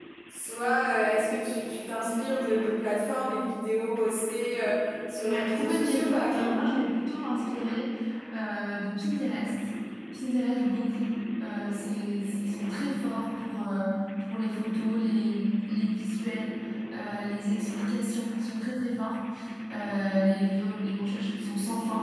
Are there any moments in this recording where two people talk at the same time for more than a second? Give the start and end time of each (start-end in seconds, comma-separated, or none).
5.2-6.5